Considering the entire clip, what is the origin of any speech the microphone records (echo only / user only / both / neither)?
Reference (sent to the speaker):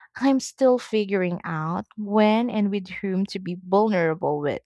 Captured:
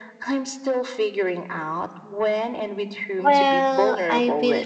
both